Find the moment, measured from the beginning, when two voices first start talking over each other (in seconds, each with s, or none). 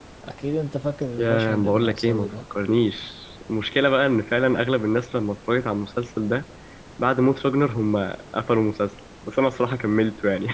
1.2 s